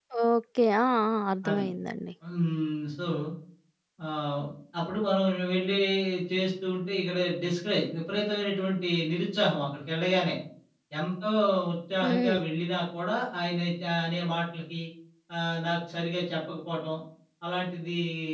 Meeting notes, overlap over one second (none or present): none